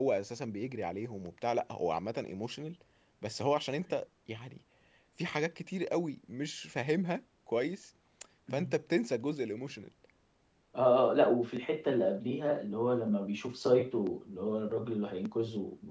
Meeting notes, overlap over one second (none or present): none